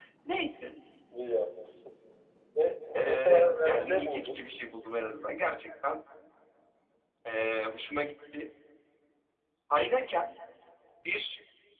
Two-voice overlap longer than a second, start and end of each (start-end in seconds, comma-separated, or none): 3.0-4.5